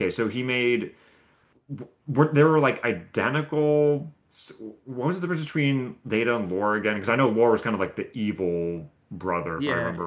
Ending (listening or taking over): taking over